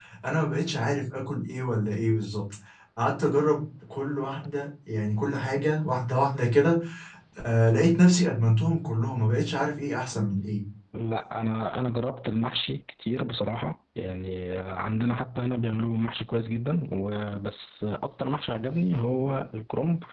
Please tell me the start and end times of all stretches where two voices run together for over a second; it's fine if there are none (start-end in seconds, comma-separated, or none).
none